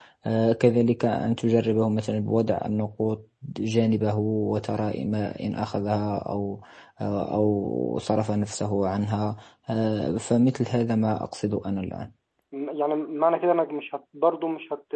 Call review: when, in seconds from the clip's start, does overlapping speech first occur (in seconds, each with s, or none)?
none